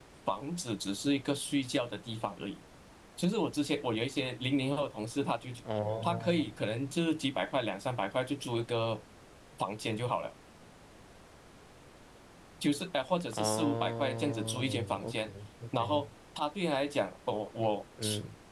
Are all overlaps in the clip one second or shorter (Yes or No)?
No